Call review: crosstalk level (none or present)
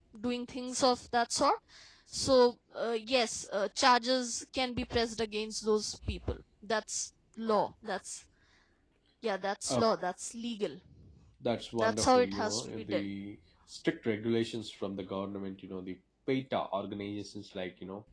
present